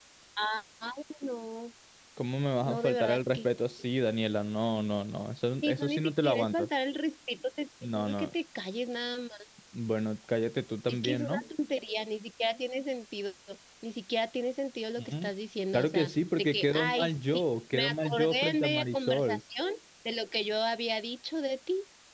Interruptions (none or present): present